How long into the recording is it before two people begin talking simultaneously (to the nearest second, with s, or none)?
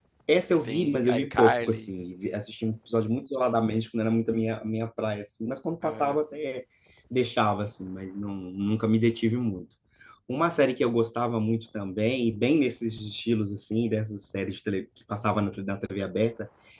1 s